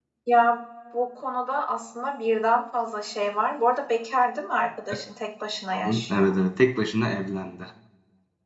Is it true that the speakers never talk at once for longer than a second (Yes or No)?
Yes